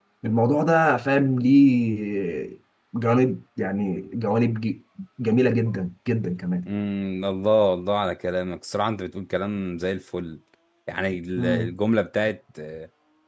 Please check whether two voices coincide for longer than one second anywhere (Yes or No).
No